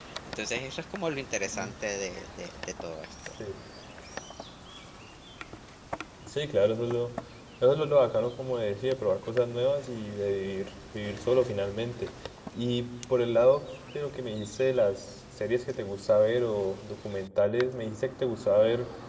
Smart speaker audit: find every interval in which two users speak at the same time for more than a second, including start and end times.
none

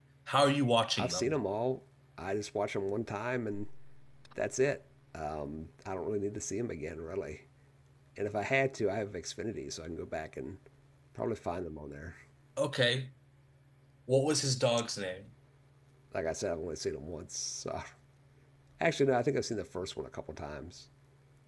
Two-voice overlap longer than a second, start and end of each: none

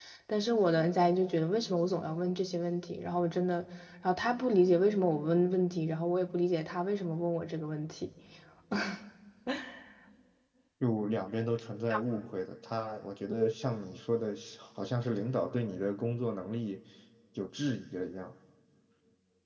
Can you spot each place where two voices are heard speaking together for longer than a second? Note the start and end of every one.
none

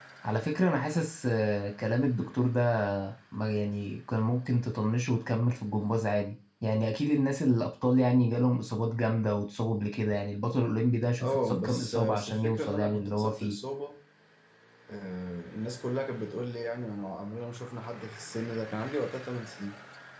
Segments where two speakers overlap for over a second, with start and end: 11.2-13.6

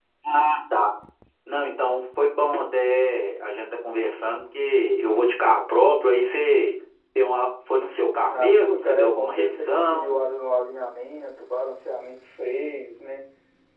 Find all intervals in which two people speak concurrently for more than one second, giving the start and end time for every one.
8.3-10.2

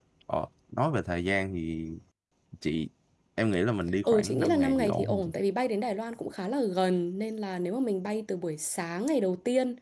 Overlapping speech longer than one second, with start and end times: 4.0-5.3

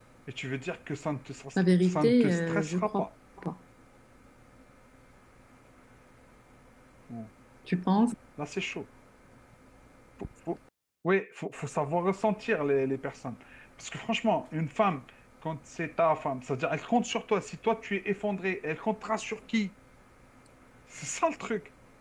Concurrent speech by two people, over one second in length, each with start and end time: 1.9-3.0

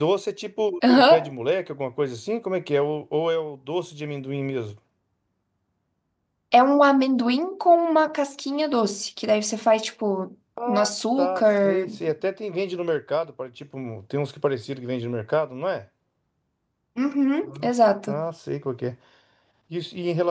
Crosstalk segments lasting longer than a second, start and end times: 10.7-11.9

